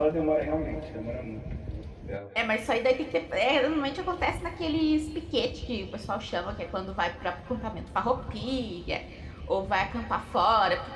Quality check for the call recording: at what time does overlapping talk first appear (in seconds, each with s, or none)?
none